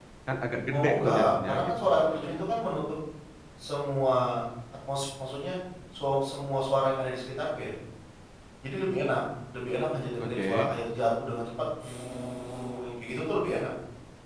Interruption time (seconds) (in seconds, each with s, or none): 0.7 s